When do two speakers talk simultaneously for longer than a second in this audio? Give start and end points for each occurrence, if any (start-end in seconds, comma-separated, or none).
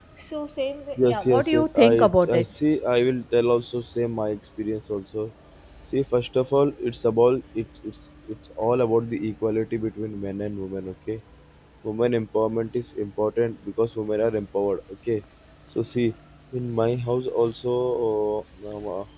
1.0-2.4